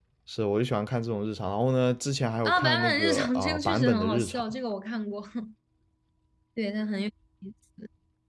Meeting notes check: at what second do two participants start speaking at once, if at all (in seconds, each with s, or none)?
2.4 s